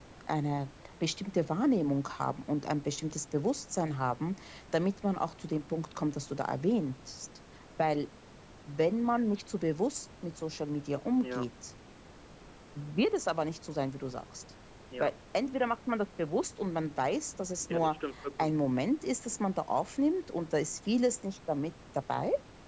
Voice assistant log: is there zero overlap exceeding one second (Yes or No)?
Yes